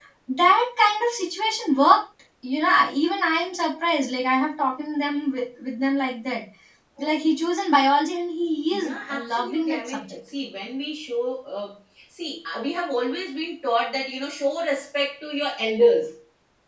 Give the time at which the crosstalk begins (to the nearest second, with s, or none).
9 s